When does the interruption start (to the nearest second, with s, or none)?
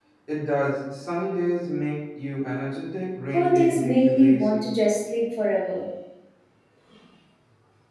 3 s